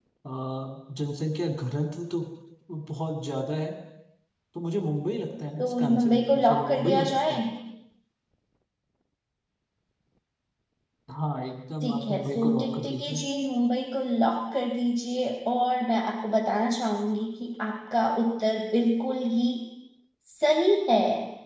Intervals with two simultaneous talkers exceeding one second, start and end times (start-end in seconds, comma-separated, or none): 5.6-7.4, 11.8-13.2